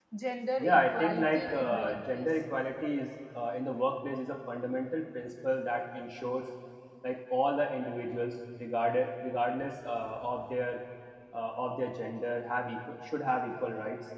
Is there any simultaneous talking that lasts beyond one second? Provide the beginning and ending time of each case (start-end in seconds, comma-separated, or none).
0.6-2.2